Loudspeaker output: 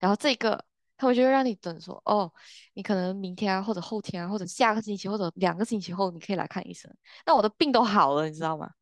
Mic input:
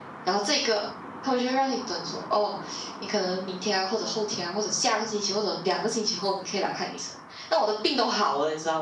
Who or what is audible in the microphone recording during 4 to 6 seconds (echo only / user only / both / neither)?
echo only